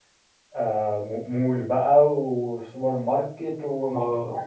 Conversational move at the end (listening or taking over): taking over